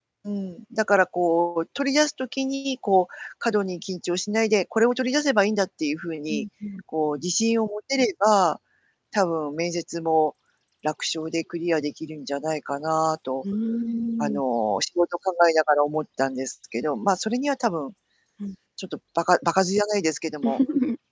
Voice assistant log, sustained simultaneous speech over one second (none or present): none